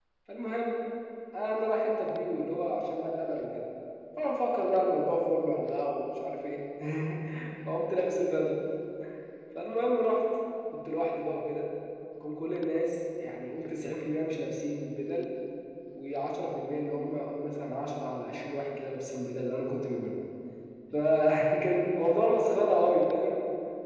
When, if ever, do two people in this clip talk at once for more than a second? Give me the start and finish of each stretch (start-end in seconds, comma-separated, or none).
none